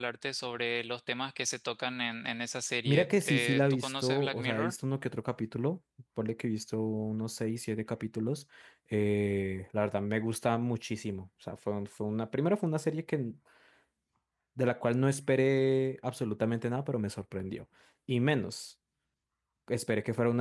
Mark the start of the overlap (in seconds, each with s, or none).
2.9 s